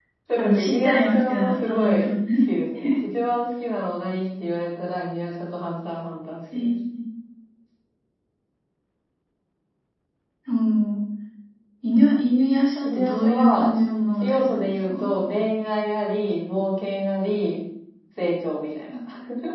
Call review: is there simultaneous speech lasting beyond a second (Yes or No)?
Yes